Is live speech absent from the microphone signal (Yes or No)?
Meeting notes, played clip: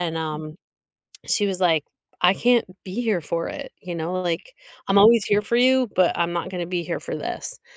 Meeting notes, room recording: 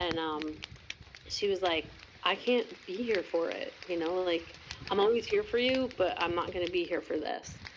Yes